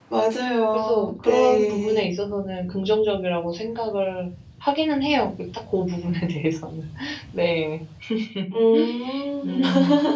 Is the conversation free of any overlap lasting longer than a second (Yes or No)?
No